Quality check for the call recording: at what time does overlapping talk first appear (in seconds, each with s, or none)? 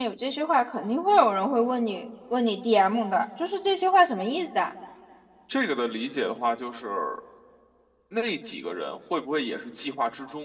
none